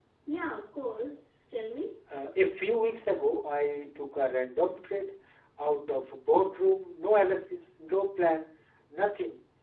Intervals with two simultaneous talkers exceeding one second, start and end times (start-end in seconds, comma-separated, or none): none